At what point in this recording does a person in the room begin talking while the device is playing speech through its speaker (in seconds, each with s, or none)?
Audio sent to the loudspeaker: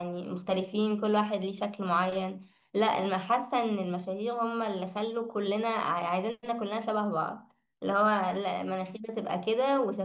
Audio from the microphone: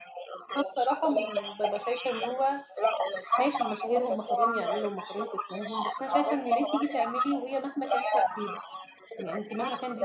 0.6 s